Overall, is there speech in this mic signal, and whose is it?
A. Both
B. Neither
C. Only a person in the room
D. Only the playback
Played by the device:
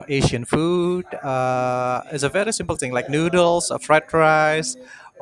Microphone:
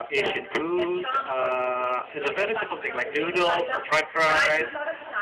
A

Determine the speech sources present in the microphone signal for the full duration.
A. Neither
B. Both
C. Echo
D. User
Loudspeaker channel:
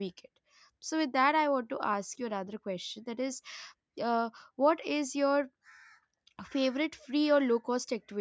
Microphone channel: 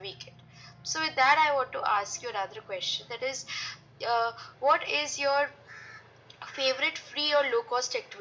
C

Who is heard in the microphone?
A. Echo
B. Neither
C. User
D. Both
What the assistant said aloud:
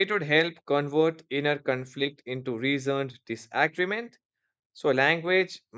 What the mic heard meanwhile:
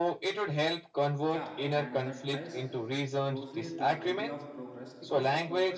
D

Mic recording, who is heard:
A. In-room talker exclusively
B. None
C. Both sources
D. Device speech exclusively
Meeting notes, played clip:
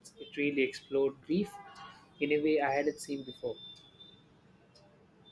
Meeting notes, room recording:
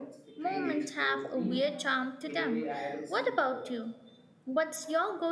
C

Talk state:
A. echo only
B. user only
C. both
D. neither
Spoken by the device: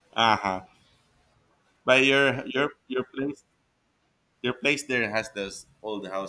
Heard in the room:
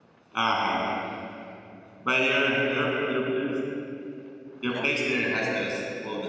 C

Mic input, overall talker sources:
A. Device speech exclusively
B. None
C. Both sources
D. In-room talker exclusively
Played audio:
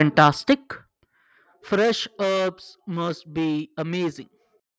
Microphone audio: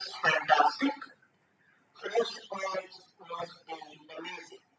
A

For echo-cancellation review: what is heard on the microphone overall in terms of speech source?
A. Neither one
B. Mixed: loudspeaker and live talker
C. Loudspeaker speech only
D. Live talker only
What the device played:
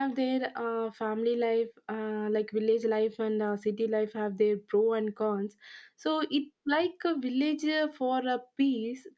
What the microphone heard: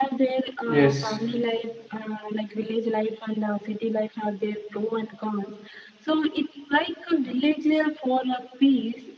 B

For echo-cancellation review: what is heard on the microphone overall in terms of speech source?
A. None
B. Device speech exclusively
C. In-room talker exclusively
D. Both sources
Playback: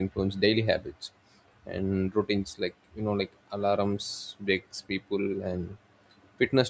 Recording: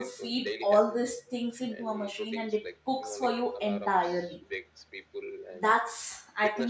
D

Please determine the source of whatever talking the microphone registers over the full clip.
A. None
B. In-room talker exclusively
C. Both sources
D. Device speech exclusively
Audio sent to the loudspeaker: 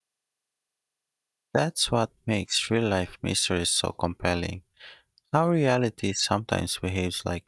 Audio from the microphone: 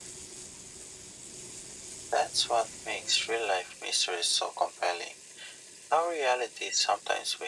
D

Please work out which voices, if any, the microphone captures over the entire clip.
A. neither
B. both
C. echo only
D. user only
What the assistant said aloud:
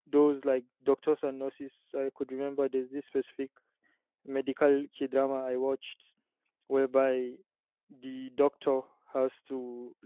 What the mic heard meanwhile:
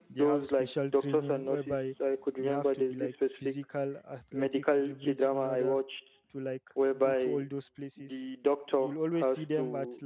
B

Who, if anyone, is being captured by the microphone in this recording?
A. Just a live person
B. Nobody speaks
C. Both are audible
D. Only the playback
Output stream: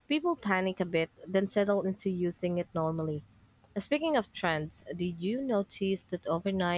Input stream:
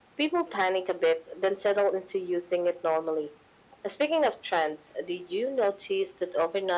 D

